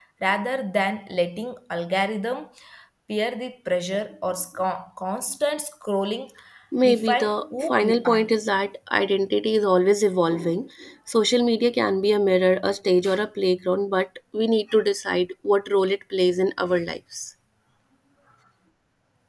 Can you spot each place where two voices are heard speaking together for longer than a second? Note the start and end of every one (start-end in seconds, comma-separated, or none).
6.9-8.2